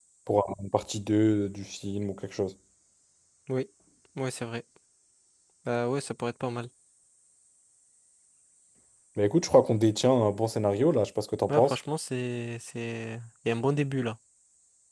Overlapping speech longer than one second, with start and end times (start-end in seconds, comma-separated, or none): none